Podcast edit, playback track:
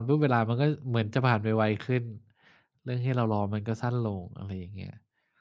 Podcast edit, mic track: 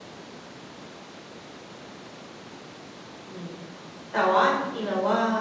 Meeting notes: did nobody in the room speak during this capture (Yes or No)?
No